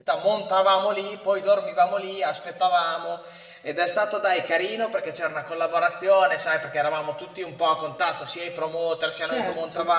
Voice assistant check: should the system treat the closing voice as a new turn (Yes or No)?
No